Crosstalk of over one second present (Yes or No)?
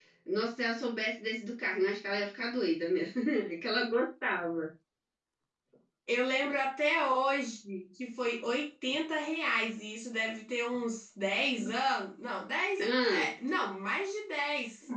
No